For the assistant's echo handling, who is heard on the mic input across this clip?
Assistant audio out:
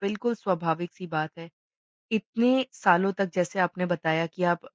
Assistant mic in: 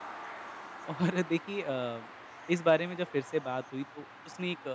user only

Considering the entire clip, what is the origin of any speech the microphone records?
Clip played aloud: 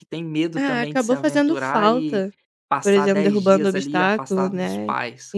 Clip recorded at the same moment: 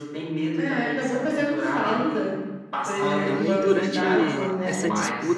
both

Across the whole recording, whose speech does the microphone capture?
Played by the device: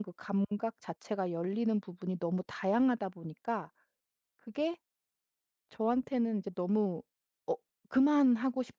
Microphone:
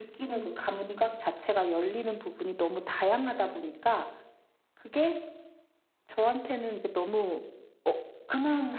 echo only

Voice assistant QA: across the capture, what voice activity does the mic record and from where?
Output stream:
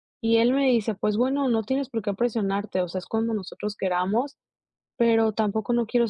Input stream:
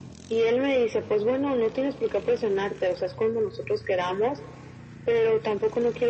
echo only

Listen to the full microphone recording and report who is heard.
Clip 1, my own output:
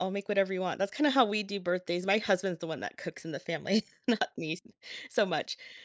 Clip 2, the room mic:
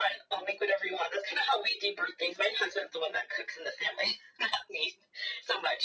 echo only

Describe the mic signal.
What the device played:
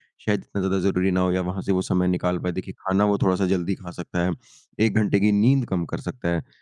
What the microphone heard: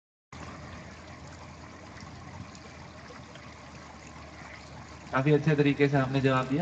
user only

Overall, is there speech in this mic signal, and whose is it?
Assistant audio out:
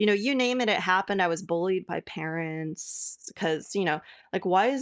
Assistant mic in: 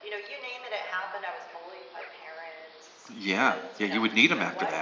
both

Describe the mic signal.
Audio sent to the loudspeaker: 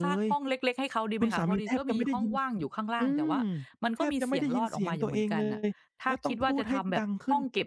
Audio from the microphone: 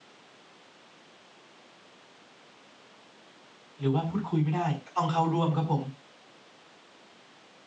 user only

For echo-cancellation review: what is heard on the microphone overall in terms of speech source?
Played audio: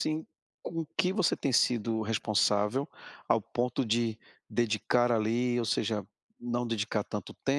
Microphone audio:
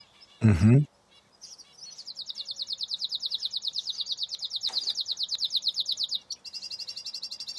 user only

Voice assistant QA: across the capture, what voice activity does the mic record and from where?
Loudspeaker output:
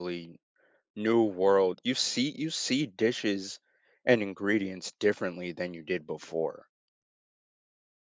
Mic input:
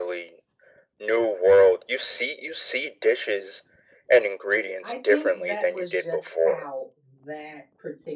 both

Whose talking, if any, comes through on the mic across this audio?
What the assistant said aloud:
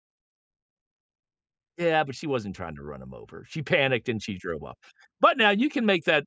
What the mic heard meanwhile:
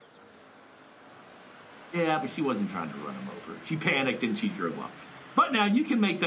echo only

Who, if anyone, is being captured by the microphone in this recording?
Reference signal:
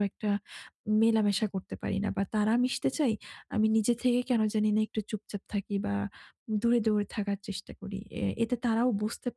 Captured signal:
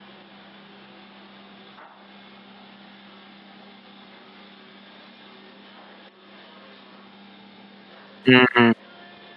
user only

